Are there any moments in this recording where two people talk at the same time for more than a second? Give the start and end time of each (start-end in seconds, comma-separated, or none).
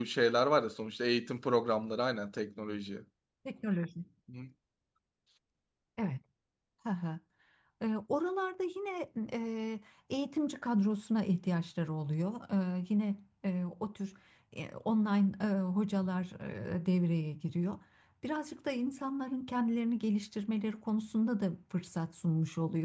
none